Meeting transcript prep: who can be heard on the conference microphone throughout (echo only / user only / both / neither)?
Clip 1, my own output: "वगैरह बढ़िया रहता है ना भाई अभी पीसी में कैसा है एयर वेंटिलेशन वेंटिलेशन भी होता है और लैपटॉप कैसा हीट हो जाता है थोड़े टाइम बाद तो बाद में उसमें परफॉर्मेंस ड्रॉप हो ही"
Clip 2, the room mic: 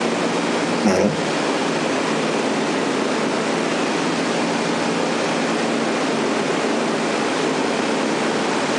user only